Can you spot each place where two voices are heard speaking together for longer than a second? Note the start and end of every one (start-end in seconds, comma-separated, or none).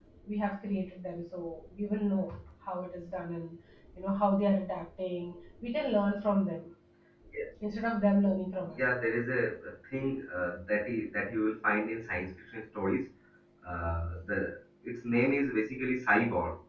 none